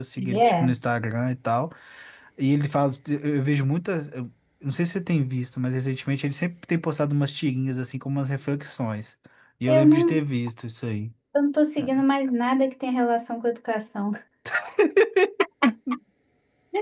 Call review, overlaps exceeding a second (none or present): none